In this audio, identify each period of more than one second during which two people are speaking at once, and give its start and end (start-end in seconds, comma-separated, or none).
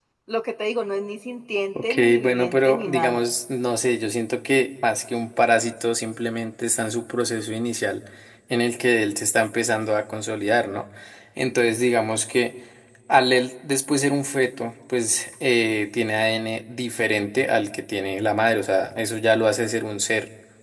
1.8-3.3